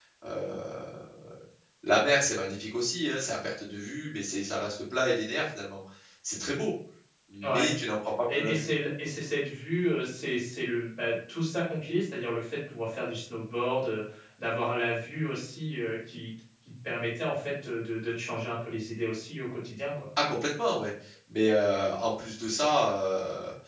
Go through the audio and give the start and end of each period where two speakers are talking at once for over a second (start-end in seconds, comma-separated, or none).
none